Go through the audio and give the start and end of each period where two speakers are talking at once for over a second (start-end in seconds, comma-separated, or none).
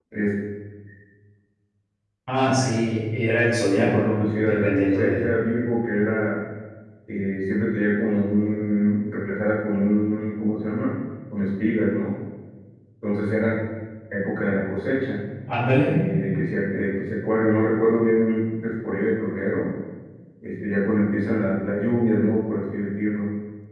3.7-5.2